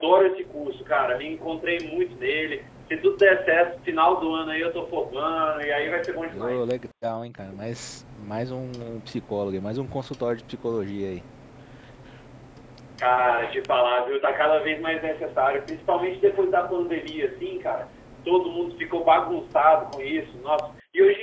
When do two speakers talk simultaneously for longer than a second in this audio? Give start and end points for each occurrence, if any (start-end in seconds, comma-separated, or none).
none